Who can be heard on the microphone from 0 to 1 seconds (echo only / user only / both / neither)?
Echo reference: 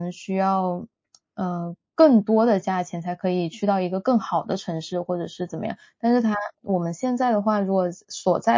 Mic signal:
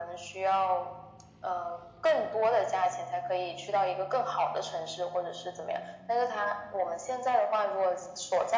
echo only